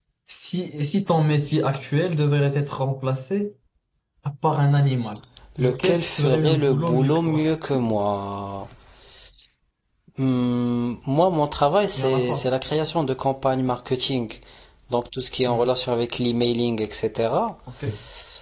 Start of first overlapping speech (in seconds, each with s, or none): 5.6 s